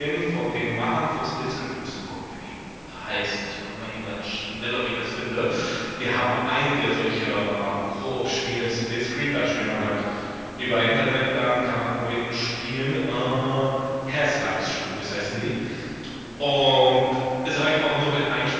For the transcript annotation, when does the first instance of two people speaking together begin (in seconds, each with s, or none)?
none